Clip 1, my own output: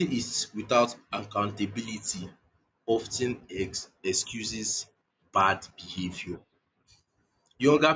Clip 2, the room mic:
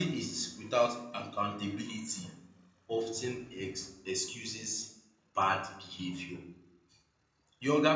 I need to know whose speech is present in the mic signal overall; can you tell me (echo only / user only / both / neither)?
echo only